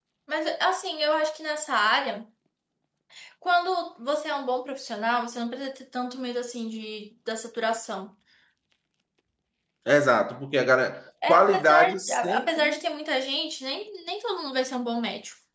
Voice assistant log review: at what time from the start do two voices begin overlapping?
11.3 s

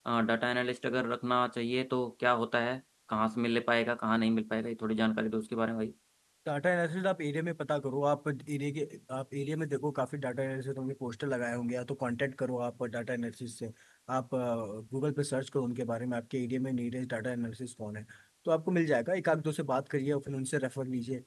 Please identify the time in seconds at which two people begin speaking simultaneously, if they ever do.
none

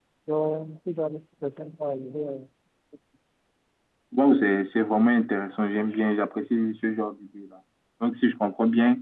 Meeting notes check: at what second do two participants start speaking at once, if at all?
none

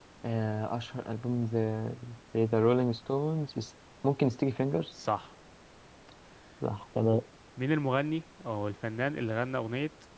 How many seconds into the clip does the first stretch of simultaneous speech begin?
none

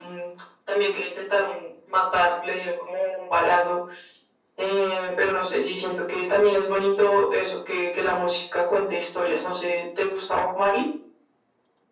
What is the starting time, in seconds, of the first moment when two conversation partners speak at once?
none

